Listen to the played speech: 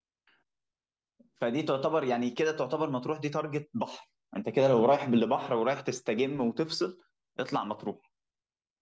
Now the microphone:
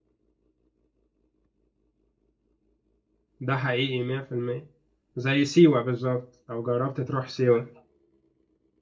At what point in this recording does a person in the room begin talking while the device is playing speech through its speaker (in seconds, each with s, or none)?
3.4 s